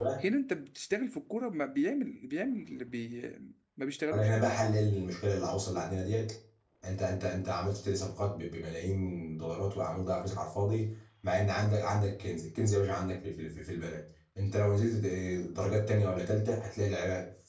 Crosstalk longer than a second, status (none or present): none